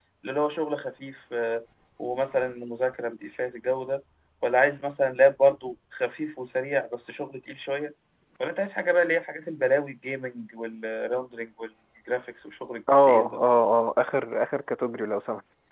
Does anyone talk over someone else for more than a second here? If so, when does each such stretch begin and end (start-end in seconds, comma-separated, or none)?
none